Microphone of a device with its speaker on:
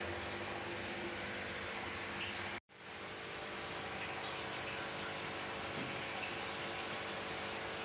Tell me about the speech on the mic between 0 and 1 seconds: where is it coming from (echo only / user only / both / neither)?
neither